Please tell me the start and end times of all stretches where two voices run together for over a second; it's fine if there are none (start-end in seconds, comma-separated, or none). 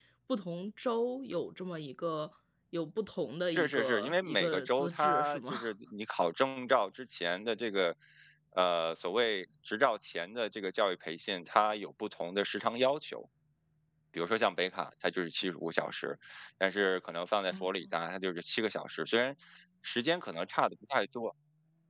3.5-5.5